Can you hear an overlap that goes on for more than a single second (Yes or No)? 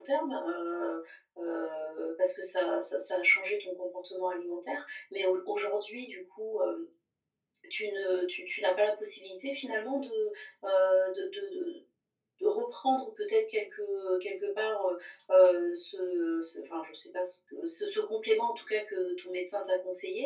No